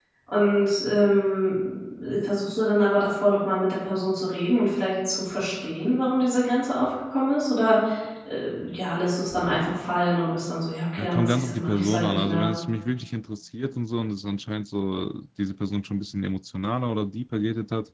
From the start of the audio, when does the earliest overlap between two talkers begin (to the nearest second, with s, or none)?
11 s